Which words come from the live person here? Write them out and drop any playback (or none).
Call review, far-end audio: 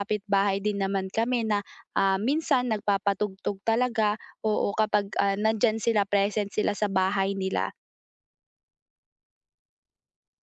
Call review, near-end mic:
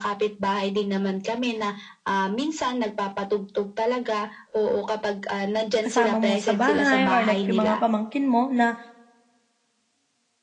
kasama mo sa bahay or like yung mga pamangkin mo na